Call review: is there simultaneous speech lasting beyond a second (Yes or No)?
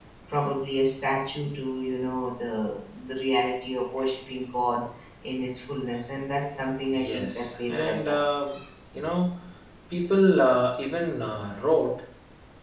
Yes